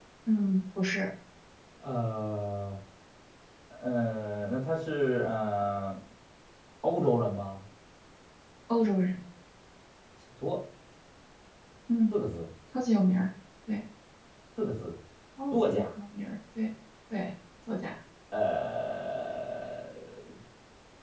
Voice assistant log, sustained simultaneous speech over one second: none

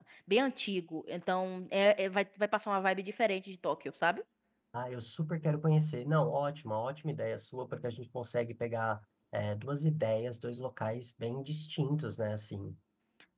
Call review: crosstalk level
none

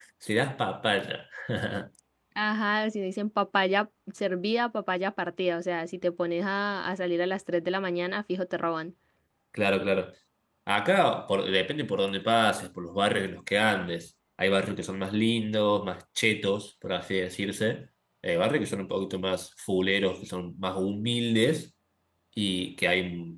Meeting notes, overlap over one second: none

